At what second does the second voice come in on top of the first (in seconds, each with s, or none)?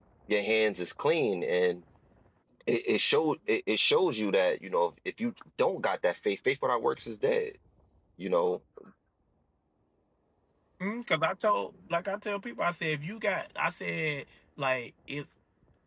none